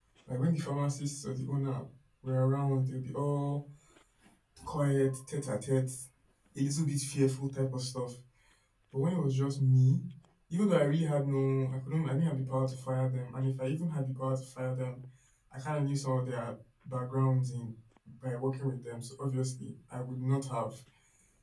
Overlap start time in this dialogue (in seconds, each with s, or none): none